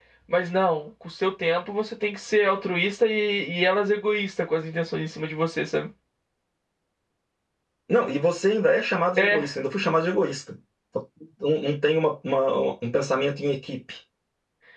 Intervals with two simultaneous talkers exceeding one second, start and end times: none

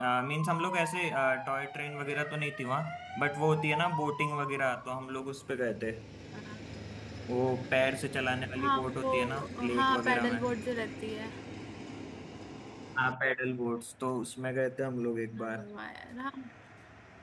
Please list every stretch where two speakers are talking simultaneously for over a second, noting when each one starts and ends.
8.6-10.4

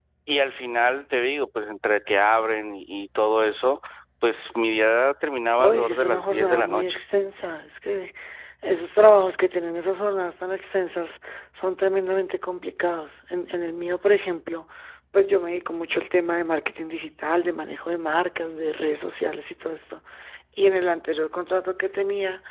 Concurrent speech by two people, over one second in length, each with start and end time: 5.6-7.0

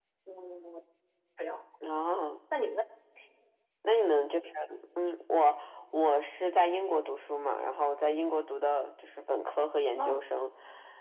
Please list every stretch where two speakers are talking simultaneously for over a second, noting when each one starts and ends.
none

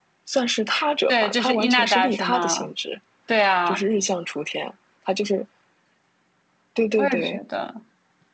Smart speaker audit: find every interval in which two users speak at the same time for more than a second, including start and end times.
1.1-2.7

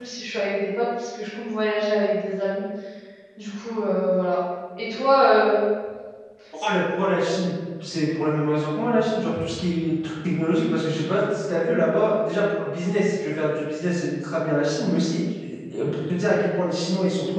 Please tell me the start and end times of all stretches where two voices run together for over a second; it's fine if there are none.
none

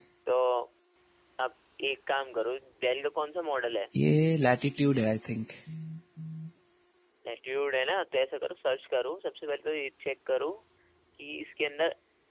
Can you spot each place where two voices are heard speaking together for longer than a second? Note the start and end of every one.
none

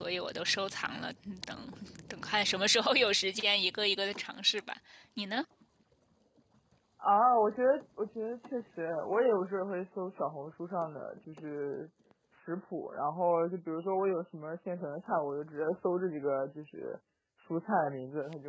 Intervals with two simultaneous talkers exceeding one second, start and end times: none

